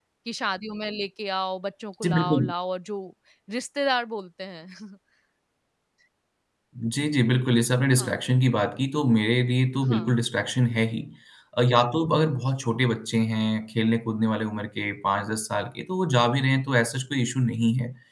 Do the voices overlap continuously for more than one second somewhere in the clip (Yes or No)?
No